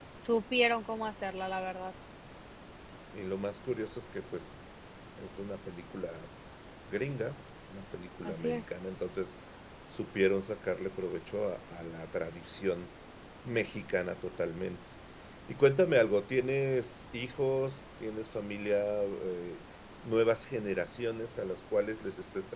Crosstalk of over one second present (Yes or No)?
No